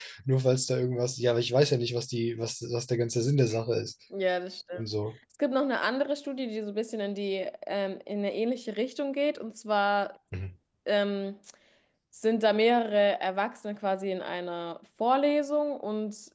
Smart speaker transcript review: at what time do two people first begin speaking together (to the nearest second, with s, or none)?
none